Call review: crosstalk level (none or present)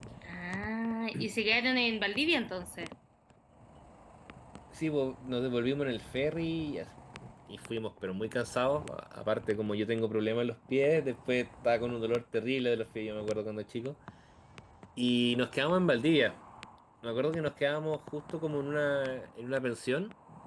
none